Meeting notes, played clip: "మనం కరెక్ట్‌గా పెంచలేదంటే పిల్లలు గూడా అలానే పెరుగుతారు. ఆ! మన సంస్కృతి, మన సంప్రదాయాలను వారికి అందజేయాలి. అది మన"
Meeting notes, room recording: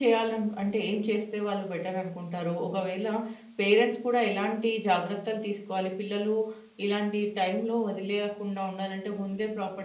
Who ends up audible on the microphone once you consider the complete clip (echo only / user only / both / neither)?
user only